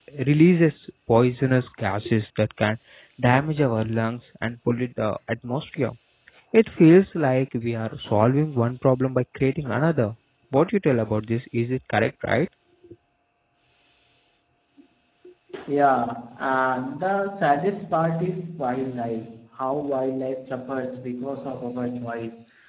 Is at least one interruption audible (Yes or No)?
No